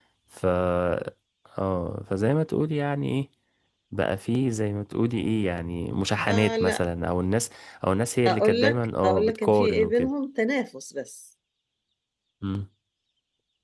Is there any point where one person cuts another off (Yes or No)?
Yes